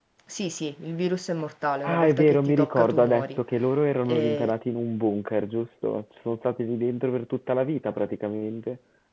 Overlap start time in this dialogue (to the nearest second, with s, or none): 2 s